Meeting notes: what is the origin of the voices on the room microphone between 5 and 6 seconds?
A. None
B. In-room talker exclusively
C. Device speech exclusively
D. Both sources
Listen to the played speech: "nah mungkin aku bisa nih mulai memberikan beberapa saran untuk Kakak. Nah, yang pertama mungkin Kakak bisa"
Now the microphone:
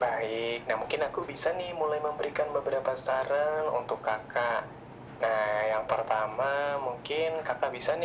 C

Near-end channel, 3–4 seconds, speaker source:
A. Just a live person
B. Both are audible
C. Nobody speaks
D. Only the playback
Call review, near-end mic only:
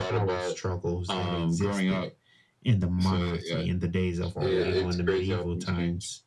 D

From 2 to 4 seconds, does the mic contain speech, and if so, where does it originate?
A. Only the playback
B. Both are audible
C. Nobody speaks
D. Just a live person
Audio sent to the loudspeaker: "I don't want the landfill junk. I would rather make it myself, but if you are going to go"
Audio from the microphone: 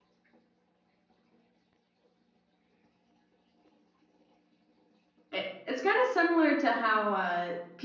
C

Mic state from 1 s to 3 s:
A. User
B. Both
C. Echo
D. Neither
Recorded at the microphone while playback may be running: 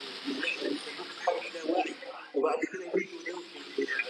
C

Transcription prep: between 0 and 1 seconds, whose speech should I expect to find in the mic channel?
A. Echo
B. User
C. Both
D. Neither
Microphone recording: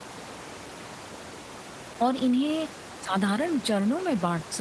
D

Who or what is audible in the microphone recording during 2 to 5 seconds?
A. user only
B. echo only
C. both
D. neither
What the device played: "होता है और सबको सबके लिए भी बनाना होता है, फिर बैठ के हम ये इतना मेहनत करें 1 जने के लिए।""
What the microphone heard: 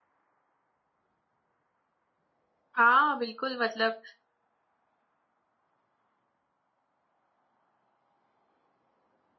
A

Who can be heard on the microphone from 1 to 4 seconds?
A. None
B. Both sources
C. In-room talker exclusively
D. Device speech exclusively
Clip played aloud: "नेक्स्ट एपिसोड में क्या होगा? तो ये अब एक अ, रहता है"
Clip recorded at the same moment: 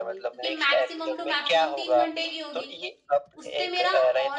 B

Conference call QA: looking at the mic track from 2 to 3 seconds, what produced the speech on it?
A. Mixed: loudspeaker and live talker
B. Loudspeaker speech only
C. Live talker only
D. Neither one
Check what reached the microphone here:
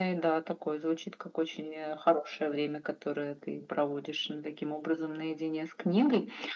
B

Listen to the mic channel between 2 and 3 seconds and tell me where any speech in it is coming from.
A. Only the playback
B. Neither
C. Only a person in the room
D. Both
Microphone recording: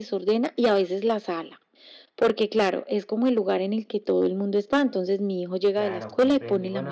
A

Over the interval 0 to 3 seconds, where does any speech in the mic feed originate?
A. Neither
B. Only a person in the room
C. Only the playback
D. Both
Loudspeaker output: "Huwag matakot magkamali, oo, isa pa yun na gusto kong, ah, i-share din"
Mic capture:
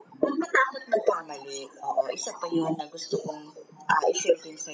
C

